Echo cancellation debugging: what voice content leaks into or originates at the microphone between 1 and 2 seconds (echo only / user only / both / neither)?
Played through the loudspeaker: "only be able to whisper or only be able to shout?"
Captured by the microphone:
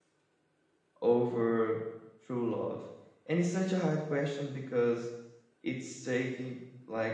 user only